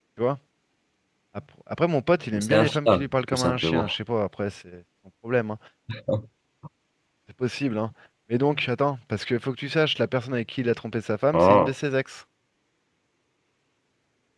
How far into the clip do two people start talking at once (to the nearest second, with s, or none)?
2 s